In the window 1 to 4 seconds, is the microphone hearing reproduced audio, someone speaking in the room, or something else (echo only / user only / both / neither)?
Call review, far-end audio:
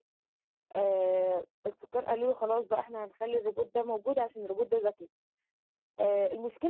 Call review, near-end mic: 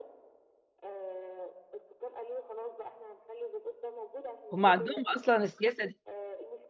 echo only